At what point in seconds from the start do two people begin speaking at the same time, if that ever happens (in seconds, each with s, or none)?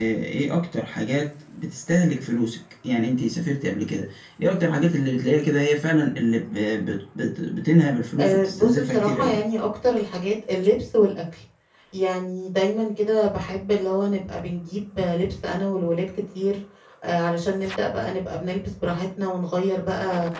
8.2 s